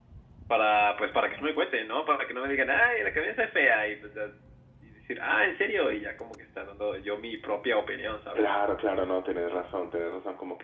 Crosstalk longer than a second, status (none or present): none